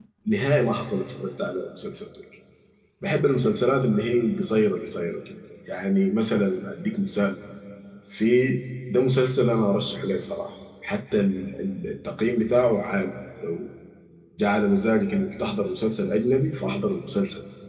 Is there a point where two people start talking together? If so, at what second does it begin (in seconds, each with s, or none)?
none